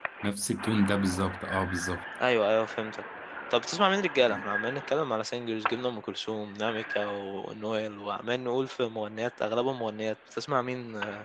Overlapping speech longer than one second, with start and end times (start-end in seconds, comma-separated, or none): none